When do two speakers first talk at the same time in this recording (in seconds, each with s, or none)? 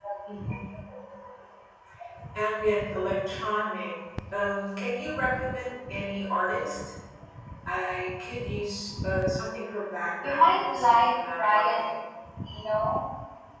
10.2 s